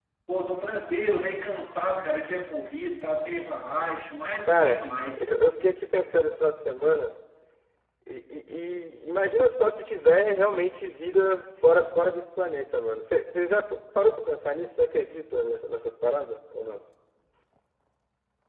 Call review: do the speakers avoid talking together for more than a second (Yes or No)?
Yes